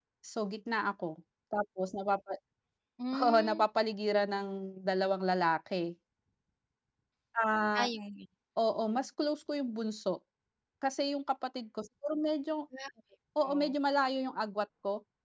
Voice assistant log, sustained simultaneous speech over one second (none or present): none